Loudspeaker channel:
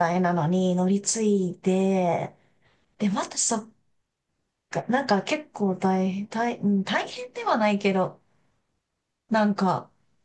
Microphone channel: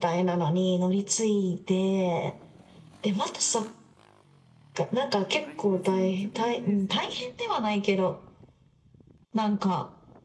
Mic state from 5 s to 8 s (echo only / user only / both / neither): both